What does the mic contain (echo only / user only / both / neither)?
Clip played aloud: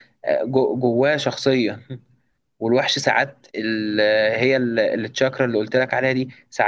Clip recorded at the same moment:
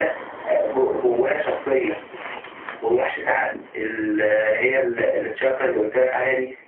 echo only